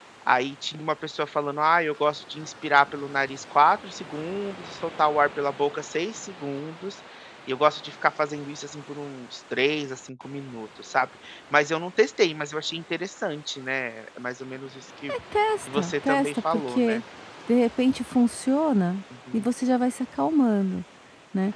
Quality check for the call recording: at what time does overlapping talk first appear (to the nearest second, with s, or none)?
16 s